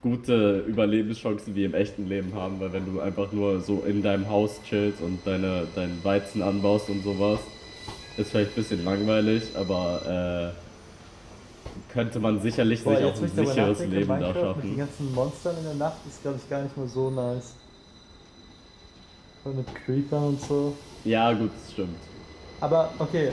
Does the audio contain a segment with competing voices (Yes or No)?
Yes